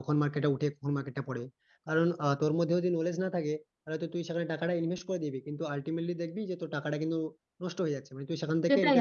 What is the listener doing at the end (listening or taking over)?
taking over